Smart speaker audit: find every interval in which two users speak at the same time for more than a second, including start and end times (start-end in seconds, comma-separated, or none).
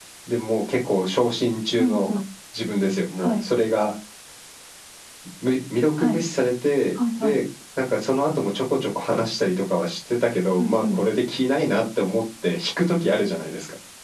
none